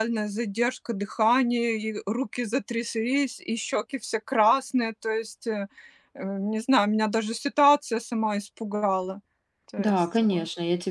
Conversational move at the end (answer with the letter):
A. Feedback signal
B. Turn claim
B